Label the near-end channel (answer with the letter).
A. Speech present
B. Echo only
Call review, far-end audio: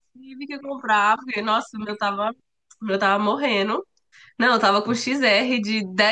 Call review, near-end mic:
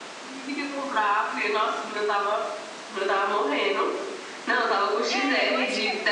A